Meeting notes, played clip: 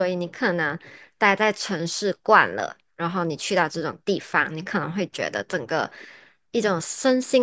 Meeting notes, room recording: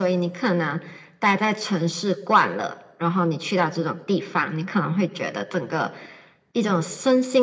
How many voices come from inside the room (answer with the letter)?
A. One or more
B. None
B